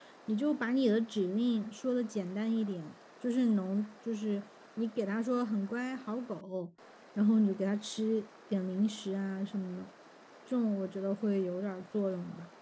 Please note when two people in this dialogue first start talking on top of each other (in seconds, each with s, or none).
none